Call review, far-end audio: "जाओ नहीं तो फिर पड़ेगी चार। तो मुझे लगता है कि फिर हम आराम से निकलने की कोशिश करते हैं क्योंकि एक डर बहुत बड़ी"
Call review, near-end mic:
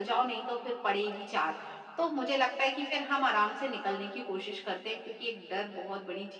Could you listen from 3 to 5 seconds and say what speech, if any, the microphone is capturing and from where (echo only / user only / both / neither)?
echo only